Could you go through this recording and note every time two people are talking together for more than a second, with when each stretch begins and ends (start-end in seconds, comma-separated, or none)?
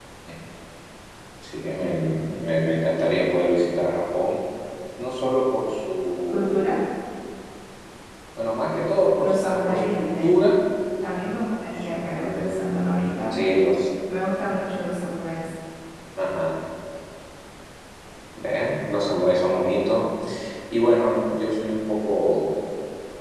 9.2-10.5